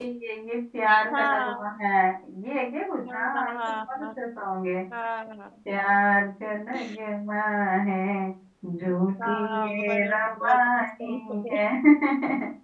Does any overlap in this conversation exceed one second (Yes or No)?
Yes